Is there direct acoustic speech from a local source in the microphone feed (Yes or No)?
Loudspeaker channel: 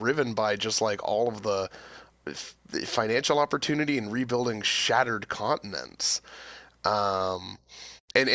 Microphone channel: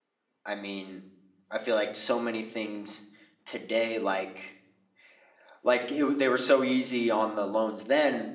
Yes